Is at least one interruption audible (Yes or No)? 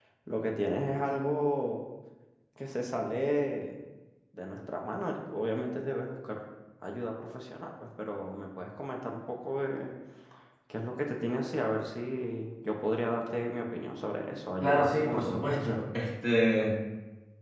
Yes